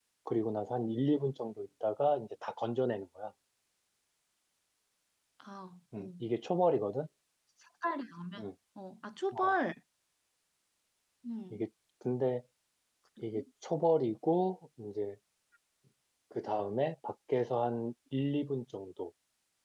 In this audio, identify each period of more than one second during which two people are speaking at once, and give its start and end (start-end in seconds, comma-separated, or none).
none